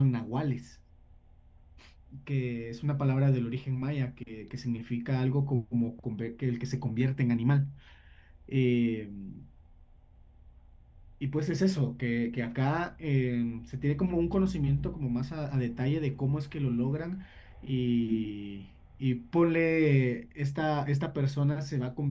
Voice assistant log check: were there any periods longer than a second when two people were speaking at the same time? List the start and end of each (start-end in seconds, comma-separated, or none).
none